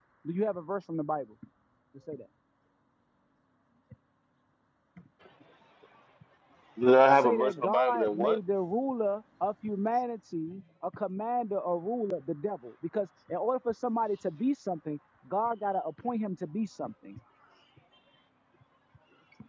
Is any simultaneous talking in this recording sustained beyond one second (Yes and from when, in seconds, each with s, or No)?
Yes, from 7.2 s